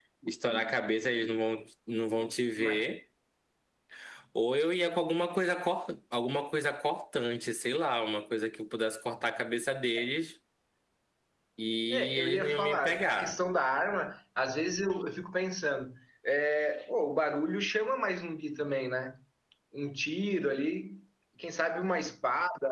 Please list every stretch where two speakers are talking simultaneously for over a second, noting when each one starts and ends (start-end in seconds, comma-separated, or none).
11.9-13.4